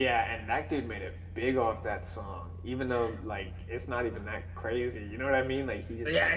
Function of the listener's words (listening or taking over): taking over